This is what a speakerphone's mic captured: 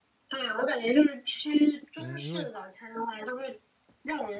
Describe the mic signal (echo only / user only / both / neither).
both